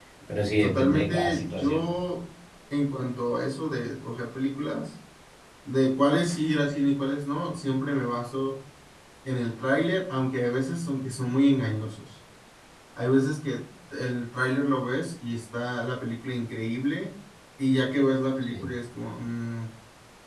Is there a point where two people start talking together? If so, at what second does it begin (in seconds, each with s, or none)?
0.6 s